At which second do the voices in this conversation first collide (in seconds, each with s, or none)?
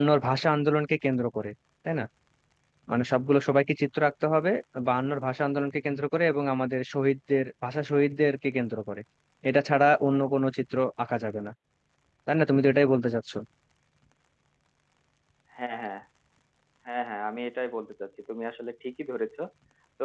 none